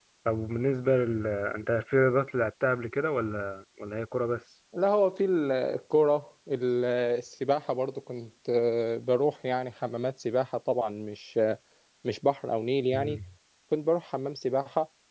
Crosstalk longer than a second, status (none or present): none